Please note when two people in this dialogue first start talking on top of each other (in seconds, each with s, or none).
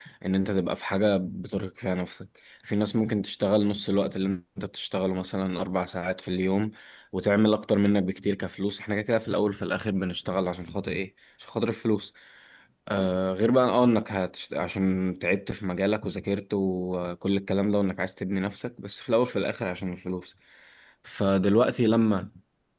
none